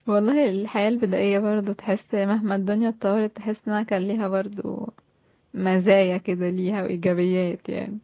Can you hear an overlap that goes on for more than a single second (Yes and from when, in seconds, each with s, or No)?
No